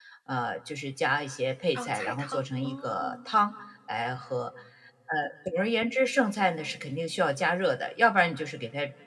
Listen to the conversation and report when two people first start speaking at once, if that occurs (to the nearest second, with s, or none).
2 s